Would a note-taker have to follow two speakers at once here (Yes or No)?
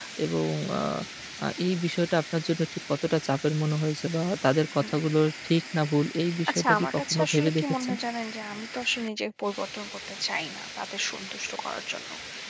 Yes